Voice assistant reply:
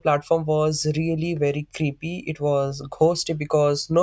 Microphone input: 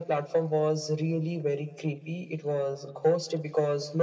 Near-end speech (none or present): none